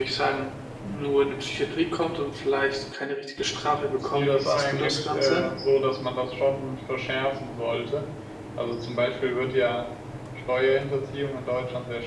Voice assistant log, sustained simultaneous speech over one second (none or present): present